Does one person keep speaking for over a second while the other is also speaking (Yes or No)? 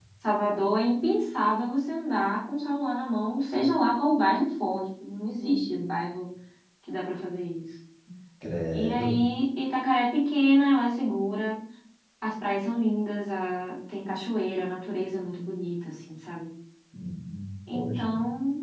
No